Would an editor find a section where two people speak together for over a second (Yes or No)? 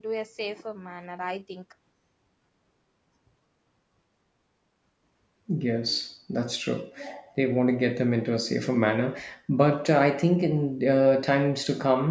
No